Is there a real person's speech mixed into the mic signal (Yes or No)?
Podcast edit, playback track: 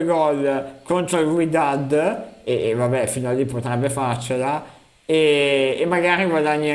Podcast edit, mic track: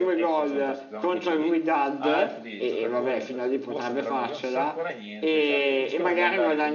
Yes